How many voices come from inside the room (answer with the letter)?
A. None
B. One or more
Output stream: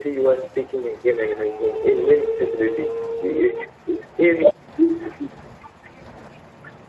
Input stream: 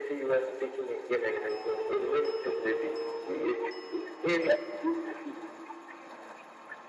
A